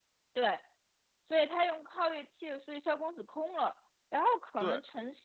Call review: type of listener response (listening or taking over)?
listening